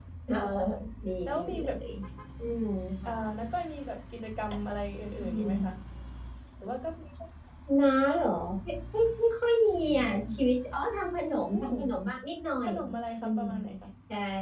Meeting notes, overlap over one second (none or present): none